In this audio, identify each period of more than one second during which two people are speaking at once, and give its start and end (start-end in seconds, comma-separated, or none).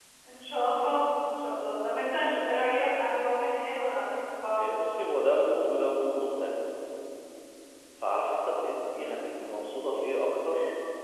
none